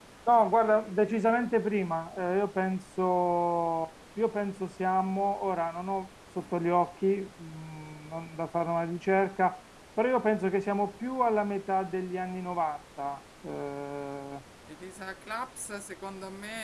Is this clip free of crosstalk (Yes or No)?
Yes